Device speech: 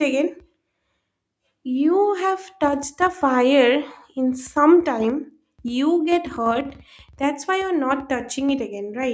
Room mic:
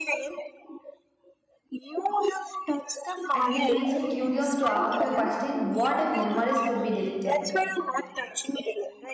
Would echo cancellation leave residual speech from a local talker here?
Yes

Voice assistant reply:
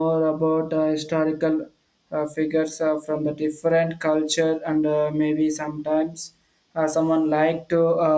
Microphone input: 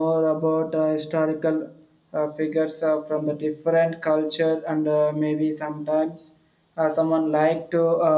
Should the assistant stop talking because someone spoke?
No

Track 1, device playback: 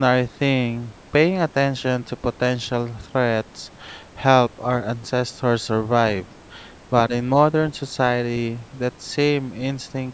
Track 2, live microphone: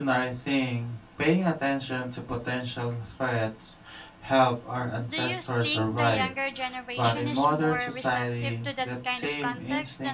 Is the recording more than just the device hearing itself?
Yes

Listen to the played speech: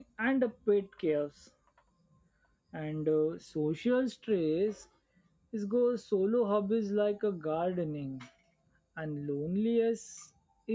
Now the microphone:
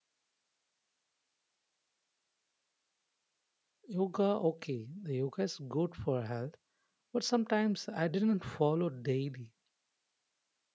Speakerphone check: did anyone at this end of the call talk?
Yes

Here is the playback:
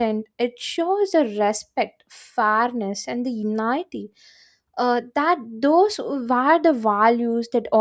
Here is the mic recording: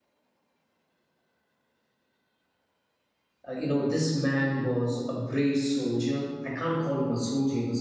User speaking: Yes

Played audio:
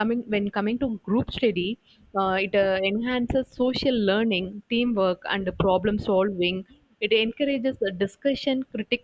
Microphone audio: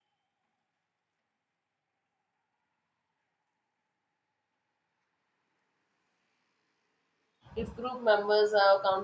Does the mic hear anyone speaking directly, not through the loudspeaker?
Yes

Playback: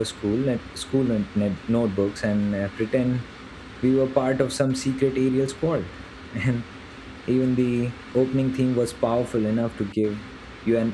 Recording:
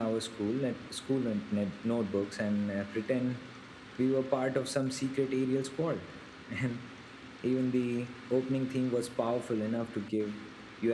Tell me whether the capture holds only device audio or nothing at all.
Yes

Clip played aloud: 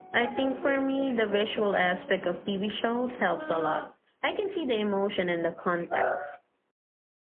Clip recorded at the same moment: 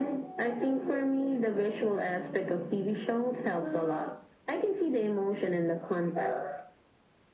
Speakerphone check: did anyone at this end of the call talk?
No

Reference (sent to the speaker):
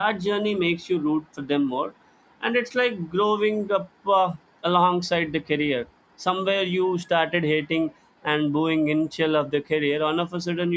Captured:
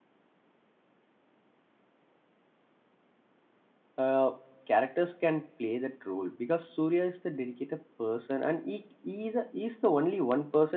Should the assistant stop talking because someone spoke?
Yes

